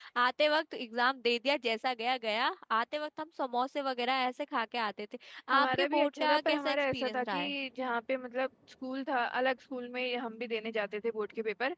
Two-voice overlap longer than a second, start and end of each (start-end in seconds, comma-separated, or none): 5.6-7.5